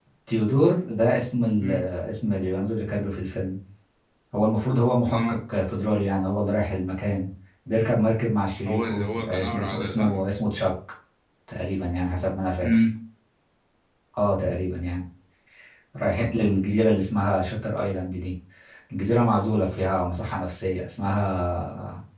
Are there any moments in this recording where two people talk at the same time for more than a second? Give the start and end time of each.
8.7-10.2

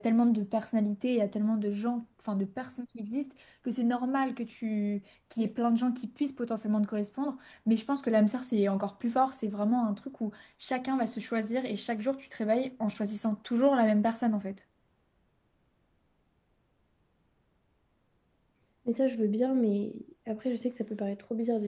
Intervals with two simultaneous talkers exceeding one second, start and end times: none

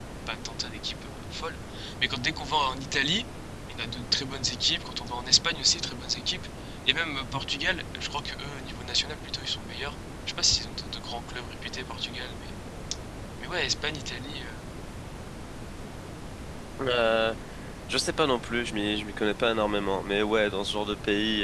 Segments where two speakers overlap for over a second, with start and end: none

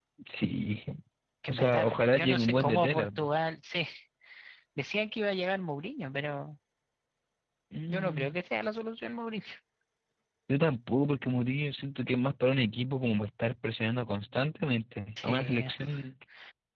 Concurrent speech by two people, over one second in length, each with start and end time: 1.5-3.2

